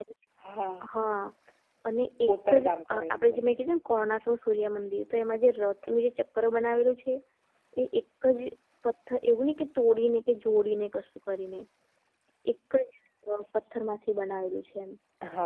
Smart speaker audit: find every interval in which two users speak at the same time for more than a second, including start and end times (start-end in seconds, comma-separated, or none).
2.3-3.6